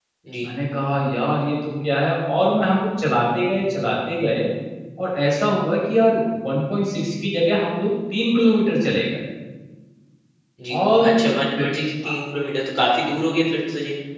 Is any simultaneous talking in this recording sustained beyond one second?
No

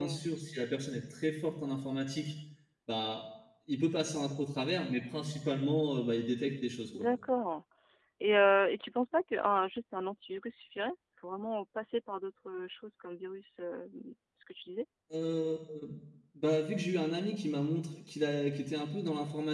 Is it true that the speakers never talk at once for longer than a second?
Yes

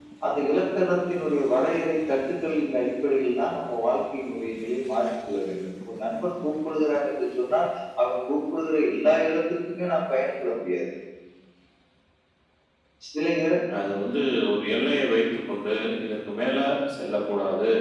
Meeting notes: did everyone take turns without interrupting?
Yes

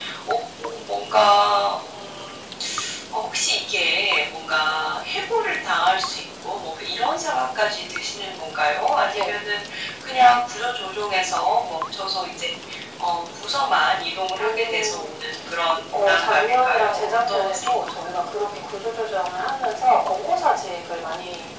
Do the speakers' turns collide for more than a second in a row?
Yes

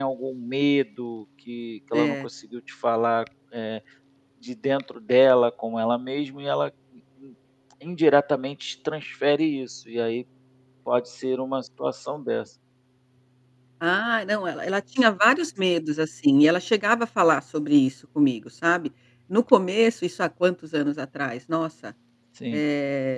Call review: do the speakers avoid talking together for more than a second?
Yes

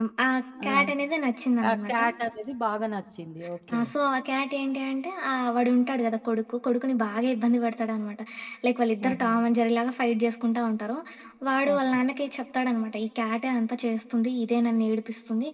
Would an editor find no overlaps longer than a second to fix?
Yes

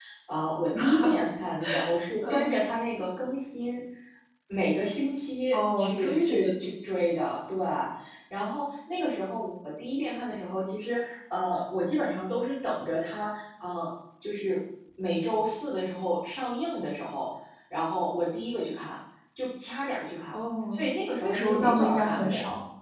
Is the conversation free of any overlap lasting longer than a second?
No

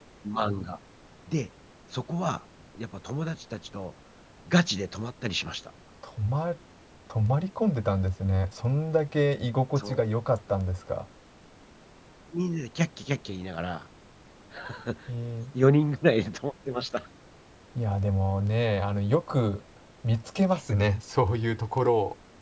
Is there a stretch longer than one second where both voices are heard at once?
No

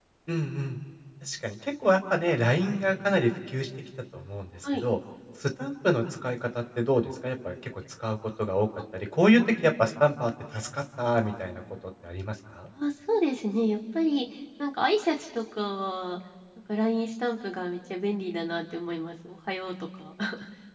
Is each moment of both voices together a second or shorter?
Yes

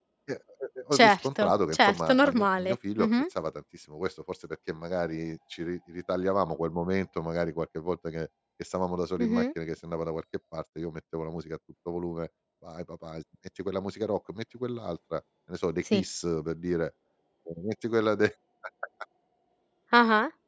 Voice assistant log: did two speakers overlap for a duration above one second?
Yes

